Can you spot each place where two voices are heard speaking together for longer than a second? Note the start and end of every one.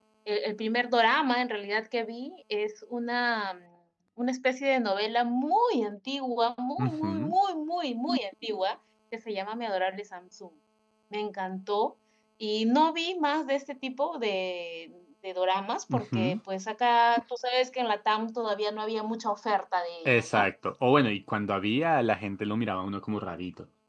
none

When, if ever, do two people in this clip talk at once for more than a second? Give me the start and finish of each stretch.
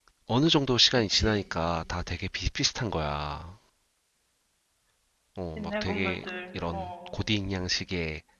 5.6-7.1

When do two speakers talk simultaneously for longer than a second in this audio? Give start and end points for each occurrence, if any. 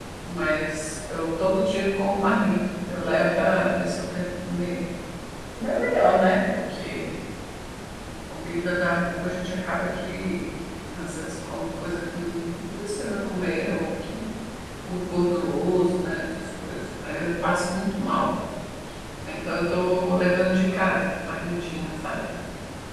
none

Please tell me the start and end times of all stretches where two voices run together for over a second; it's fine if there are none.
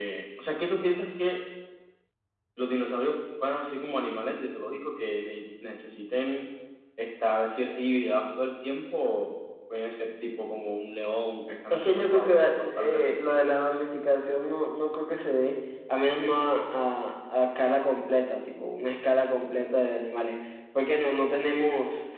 11.7-13.2

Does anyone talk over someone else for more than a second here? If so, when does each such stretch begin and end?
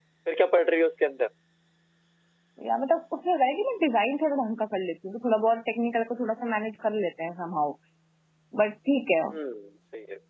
none

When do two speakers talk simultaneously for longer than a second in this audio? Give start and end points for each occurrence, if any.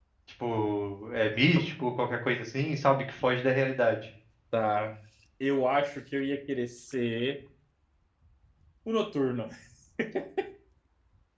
none

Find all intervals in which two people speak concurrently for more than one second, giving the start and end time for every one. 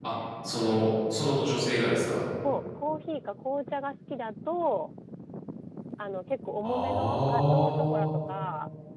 6.6-8.1

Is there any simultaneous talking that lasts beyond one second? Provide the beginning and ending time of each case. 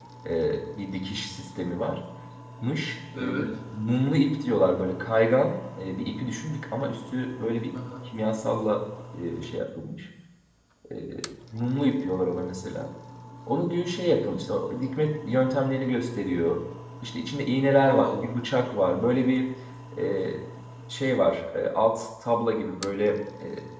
none

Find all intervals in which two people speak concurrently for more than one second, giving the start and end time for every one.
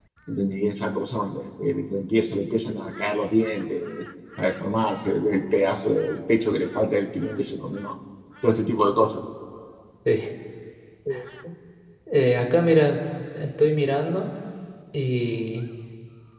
none

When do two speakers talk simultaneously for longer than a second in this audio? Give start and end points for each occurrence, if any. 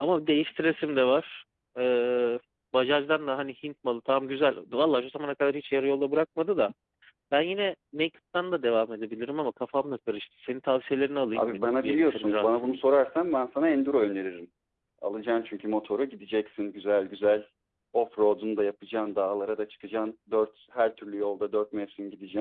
11.4-12.8

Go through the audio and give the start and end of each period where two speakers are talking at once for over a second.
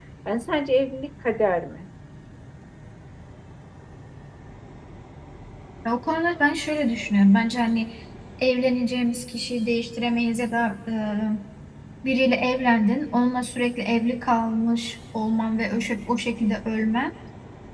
none

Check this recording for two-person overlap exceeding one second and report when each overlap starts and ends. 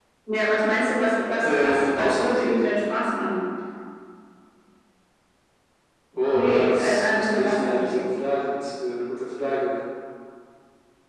1.4-2.6, 6.3-8.1

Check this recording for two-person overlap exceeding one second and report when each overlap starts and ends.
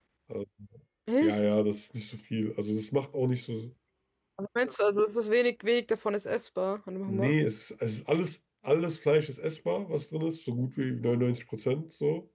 none

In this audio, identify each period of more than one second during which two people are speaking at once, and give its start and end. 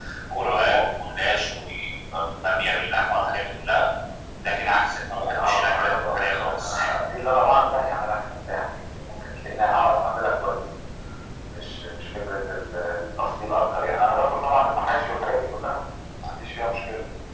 5.3-6.8

